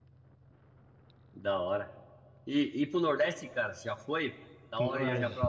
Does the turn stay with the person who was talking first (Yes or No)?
No